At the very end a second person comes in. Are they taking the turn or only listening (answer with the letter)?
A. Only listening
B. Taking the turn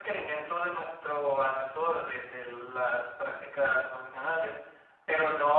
A